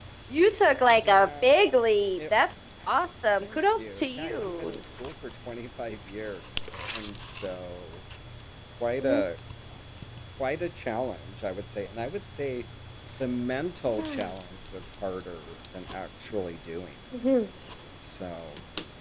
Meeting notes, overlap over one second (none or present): present